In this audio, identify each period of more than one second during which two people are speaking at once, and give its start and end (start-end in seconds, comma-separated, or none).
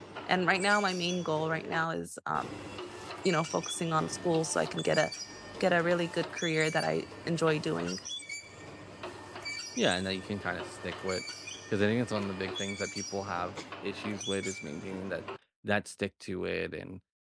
none